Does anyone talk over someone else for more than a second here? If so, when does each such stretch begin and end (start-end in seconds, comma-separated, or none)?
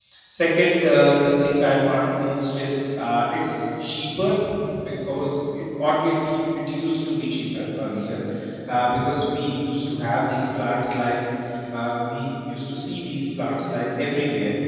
none